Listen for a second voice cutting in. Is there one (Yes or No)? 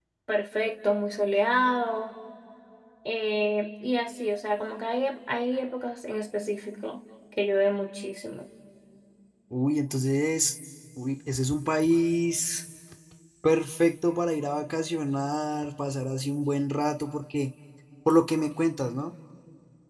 No